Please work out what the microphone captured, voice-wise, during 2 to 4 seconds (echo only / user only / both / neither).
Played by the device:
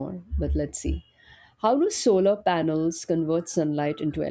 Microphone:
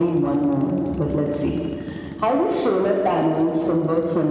echo only